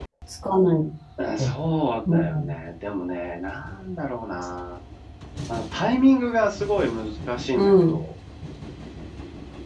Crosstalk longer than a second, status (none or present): none